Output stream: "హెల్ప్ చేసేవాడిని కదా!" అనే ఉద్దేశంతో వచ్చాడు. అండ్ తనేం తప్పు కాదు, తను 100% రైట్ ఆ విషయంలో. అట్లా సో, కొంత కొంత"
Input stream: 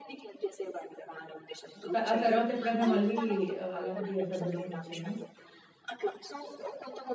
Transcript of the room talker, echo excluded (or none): హ్మ్. త ఆ తరువాతెప్పుడన్నా మళ్ళీ అలాంటి ఆ సందర్భం ఒచ్చిందా?